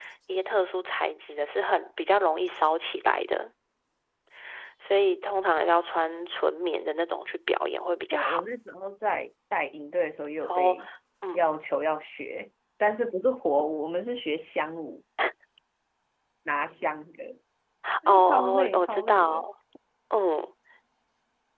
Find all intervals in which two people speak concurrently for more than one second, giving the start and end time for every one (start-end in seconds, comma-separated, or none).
18.1-19.4